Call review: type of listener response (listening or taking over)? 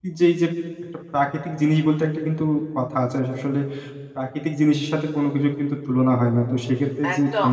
taking over